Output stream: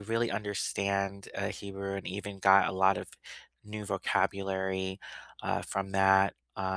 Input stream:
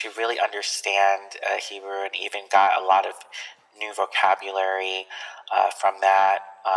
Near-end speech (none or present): none